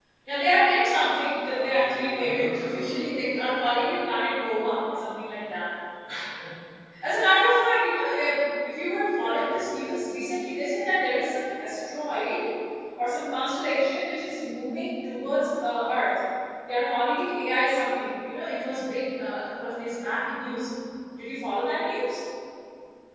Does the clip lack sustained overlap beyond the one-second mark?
No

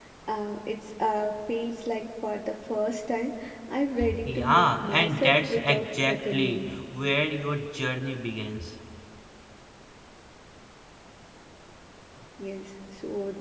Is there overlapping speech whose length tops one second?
Yes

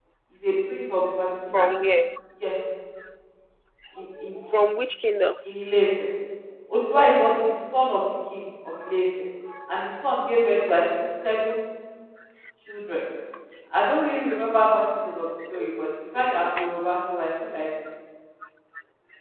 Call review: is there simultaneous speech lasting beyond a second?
No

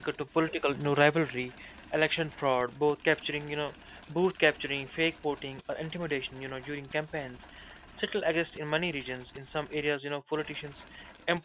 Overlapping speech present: No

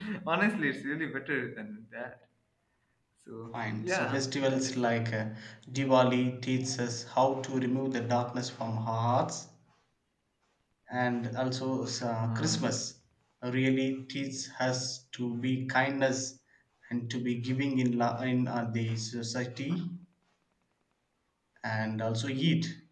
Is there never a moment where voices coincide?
No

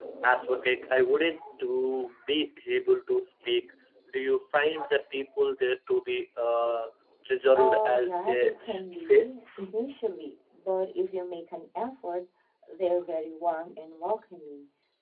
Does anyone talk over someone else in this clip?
Yes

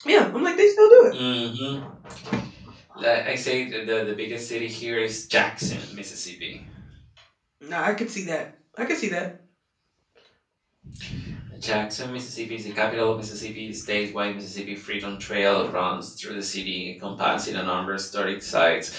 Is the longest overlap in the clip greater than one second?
No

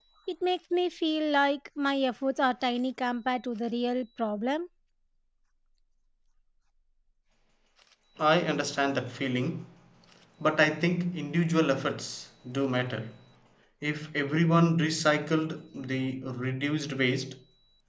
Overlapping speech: No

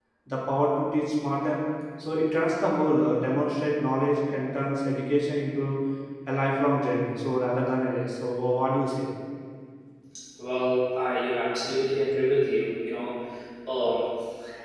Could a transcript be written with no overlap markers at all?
Yes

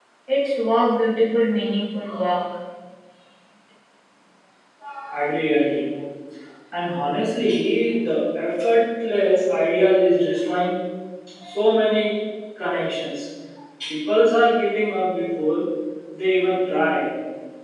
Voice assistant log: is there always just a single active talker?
Yes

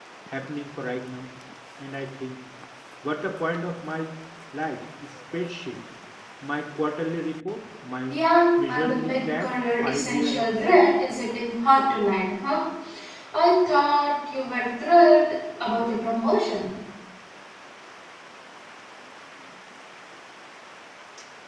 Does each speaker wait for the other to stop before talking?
No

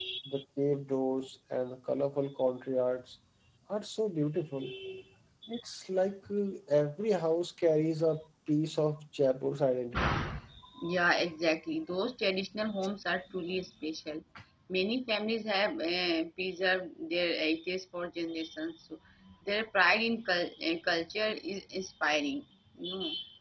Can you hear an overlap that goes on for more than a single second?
No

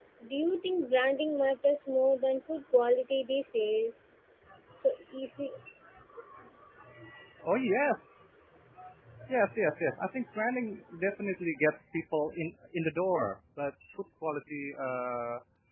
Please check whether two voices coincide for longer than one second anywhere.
No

